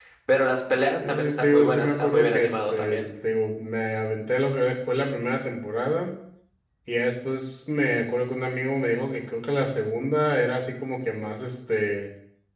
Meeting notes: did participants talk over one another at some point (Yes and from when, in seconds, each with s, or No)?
Yes, from 1.0 s